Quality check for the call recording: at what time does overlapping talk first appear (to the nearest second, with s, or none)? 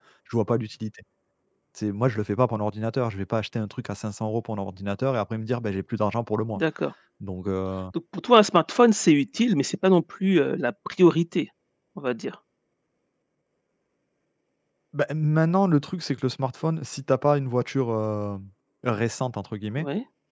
none